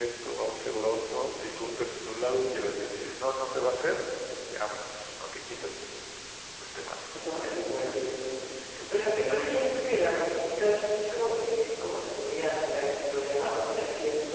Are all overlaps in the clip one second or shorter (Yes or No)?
Yes